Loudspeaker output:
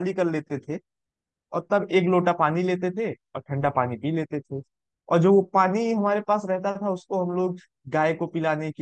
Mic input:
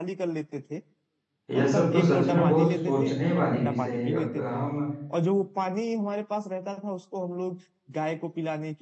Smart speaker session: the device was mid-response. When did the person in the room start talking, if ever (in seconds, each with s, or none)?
1.5 s